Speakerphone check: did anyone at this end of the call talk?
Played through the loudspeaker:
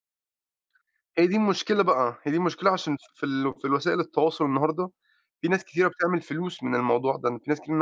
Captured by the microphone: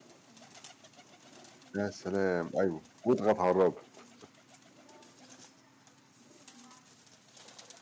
Yes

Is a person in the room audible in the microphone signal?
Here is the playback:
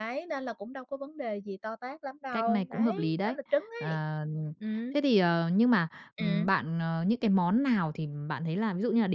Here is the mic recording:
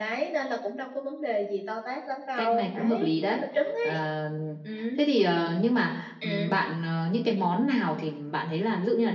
No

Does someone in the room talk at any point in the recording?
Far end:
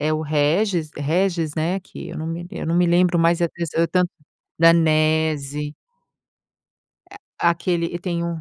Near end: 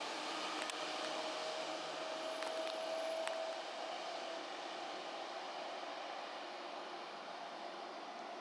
No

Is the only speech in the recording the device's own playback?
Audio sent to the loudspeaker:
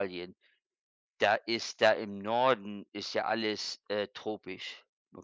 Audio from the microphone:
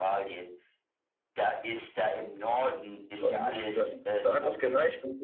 No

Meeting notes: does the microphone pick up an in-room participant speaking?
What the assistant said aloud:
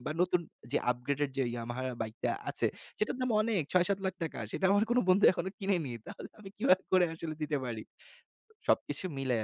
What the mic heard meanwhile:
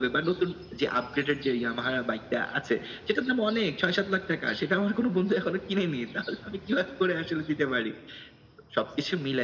No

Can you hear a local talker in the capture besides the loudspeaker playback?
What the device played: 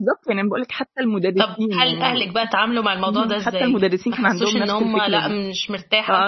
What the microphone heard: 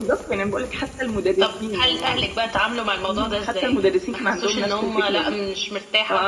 No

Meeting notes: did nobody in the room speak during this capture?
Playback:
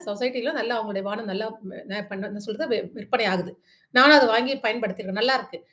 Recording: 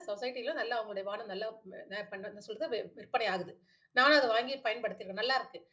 Yes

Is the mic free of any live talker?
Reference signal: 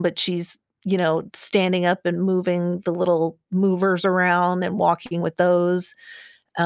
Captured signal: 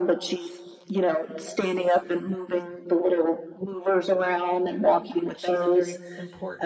No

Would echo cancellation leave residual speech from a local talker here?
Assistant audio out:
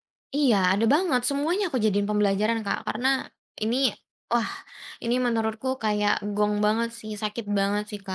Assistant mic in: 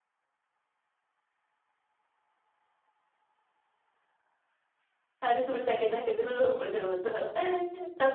Yes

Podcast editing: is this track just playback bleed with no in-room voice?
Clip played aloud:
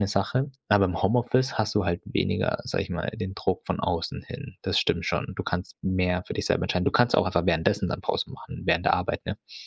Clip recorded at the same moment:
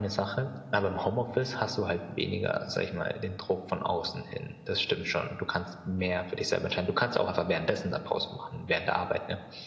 Yes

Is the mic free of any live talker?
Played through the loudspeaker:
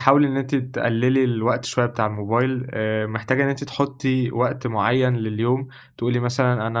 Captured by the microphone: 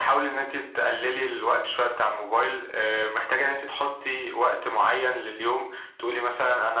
Yes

